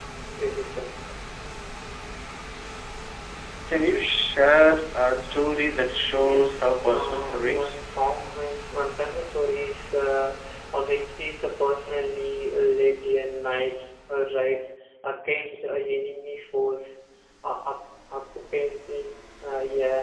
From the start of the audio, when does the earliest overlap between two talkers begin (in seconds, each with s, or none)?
6.2 s